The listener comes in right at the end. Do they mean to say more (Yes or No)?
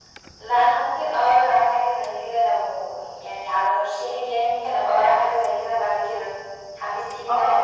Yes